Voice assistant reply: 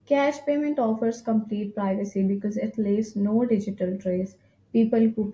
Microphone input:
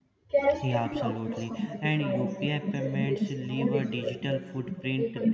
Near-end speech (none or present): present